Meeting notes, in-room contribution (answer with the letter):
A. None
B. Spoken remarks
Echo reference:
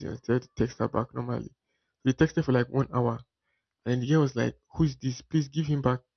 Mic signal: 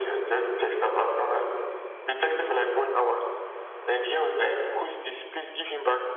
A